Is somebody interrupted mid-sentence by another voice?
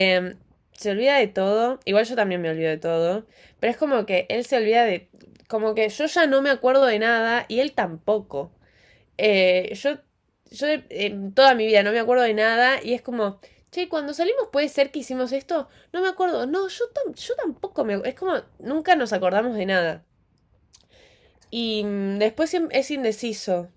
No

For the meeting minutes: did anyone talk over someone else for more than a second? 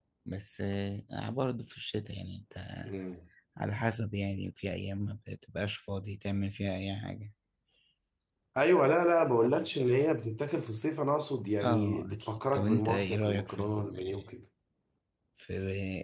Yes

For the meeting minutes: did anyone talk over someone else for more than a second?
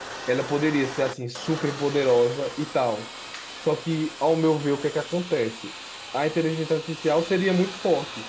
No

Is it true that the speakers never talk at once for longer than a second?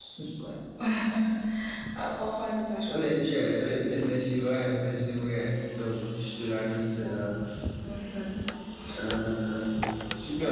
Yes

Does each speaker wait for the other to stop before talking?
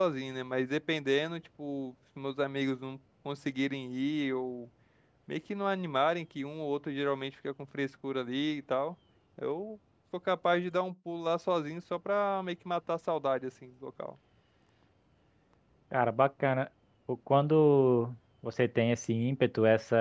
Yes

